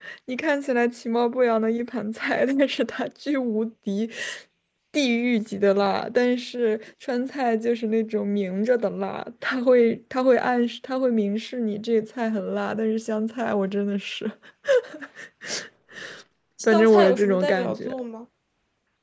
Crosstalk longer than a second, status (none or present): present